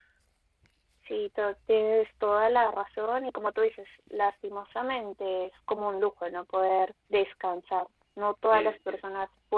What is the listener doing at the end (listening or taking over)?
listening